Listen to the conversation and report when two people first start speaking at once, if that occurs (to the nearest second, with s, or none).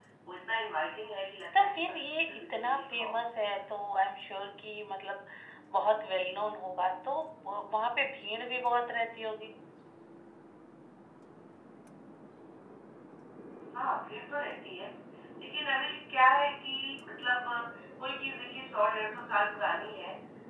2 s